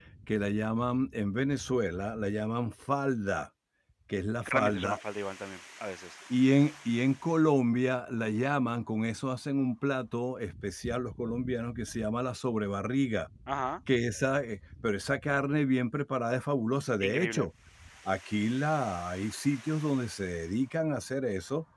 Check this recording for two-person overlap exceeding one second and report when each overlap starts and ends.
none

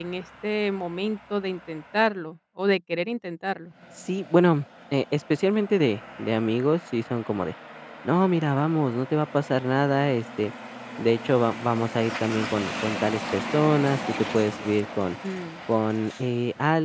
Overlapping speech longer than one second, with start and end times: none

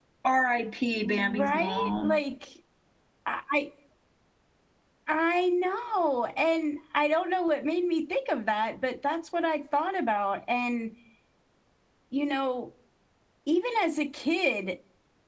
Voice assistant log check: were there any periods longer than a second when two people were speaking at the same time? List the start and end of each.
0.8-2.2

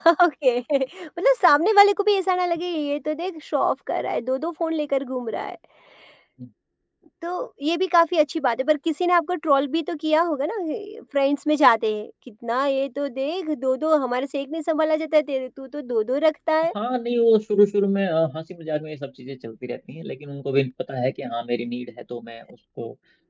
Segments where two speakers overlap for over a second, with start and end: none

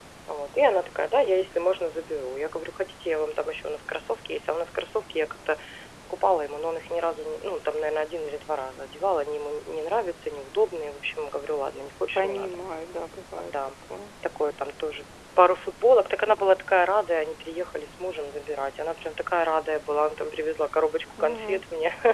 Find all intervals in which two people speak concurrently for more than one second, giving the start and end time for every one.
none

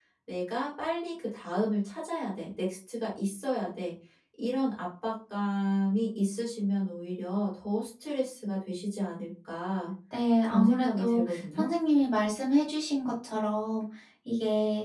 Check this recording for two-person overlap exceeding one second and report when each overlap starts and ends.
10.4-11.7

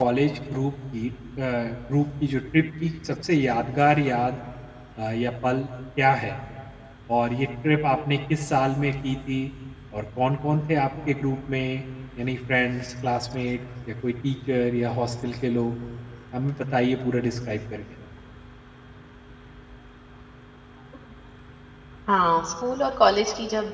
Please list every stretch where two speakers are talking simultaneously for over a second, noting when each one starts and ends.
none

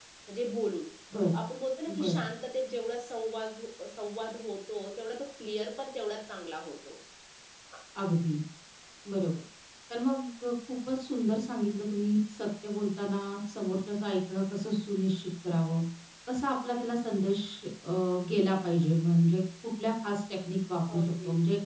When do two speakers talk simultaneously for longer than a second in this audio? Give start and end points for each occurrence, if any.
none

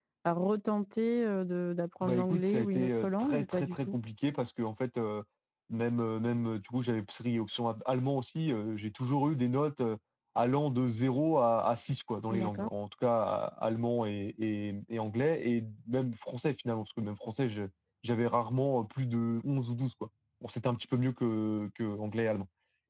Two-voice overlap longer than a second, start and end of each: 2.0-4.0

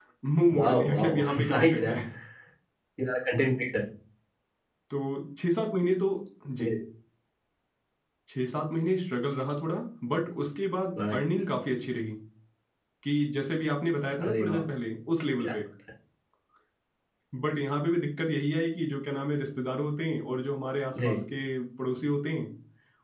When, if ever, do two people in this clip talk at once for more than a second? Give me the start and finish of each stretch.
0.6-1.9

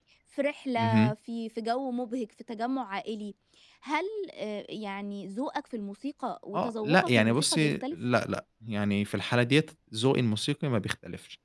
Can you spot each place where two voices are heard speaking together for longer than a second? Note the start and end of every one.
6.5-8.0

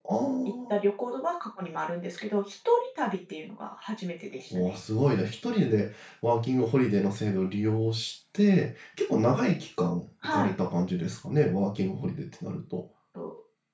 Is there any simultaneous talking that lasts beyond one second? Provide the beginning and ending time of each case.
none

